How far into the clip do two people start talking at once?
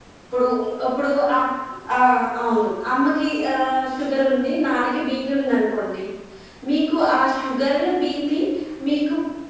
none

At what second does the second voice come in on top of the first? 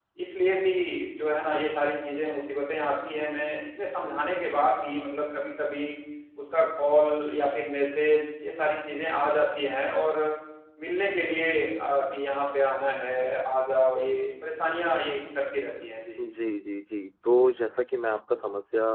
none

